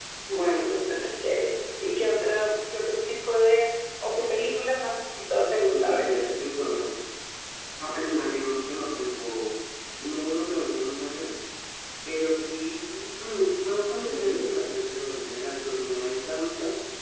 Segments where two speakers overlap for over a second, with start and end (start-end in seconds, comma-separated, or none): none